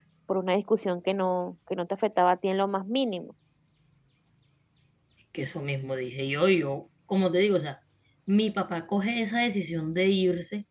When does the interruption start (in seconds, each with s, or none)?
none